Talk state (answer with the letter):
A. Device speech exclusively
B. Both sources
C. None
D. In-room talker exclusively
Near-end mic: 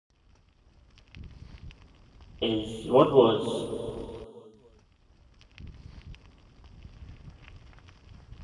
D